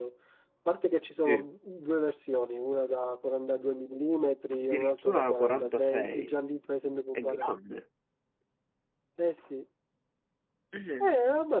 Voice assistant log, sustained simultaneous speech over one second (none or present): present